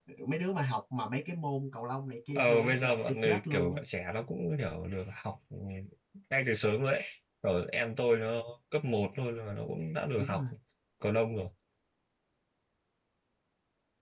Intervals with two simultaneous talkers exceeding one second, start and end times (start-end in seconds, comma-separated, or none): 2.4-3.8